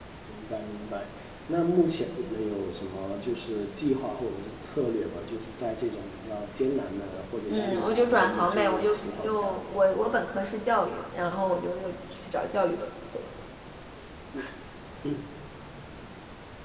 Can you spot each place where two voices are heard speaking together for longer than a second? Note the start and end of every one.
7.5-9.6

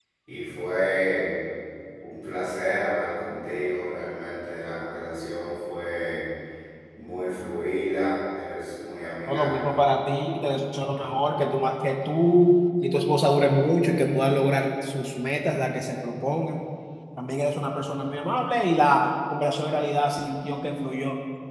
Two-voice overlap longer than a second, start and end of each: none

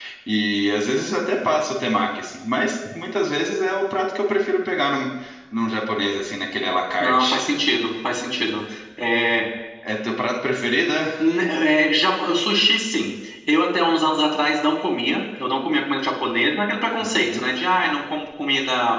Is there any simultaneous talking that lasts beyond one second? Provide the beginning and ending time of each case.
none

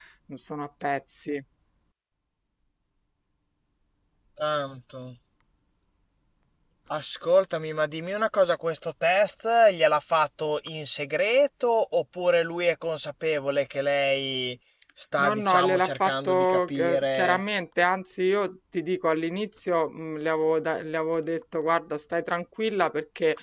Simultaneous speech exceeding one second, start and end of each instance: 15.2-17.4

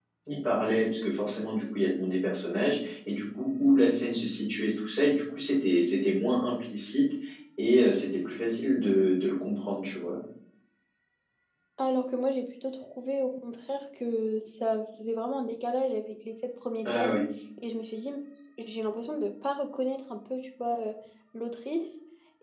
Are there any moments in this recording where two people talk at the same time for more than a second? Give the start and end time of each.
none

